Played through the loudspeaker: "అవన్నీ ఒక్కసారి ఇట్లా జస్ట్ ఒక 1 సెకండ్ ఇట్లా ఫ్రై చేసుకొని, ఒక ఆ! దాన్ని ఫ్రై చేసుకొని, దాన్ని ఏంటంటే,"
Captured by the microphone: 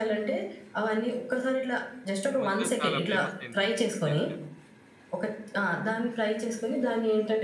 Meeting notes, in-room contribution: present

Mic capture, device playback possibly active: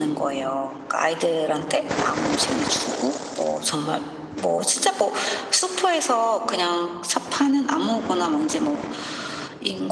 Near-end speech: none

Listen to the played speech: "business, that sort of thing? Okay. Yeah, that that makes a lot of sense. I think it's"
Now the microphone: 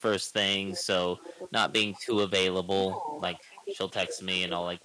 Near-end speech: present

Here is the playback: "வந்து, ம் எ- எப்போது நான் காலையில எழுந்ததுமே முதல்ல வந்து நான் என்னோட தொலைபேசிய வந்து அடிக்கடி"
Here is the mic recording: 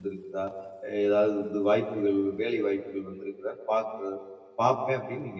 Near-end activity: present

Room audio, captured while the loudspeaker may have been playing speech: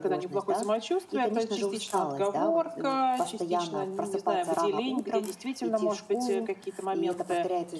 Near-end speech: none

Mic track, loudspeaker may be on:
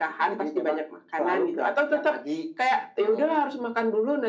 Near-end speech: none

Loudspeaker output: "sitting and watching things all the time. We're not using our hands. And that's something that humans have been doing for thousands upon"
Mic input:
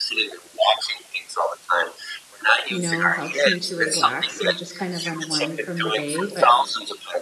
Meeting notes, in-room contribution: present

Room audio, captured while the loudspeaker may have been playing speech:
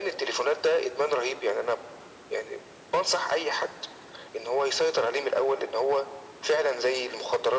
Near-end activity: none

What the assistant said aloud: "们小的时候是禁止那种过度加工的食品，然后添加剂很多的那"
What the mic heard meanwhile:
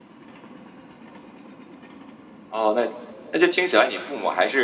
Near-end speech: present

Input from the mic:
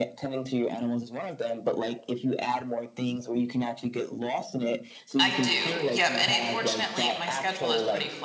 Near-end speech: present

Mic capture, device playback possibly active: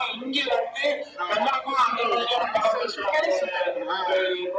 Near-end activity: none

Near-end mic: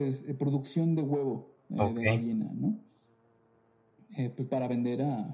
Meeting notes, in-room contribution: present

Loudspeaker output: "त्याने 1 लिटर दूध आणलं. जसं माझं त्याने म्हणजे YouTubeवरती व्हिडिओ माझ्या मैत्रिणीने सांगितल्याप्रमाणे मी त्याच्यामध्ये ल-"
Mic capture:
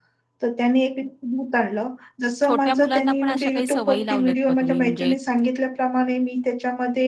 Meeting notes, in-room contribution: present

